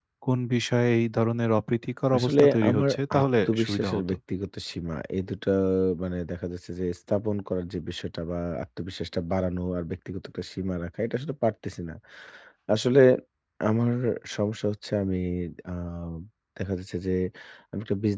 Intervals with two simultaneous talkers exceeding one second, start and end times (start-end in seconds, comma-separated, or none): 2.2-4.2